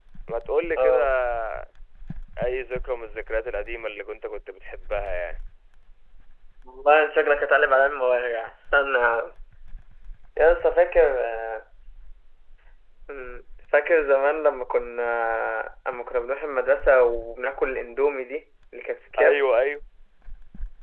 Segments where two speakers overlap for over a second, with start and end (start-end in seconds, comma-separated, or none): none